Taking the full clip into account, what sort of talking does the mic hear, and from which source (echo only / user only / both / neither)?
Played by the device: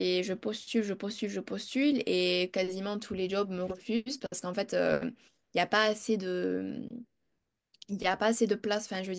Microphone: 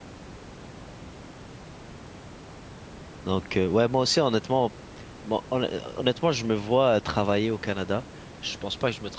user only